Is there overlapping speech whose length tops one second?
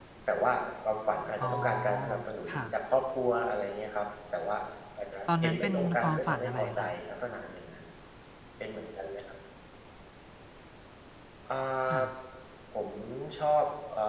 Yes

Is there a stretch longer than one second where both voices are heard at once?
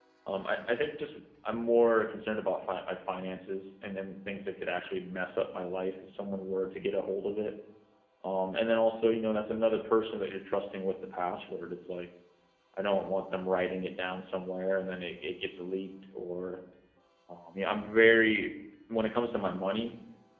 No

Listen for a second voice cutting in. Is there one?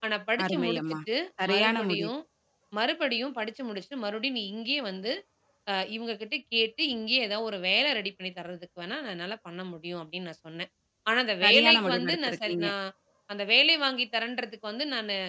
Yes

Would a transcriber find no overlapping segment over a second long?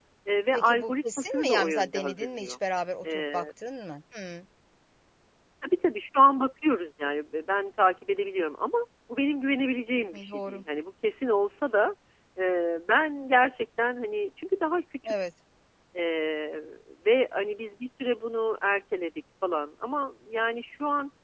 No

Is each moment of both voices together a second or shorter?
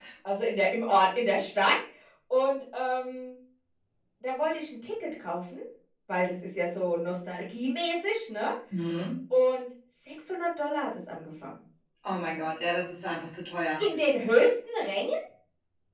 Yes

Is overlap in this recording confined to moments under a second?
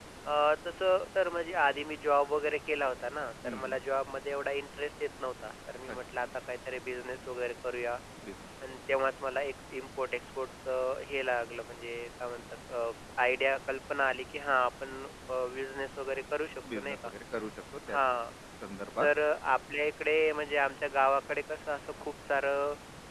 Yes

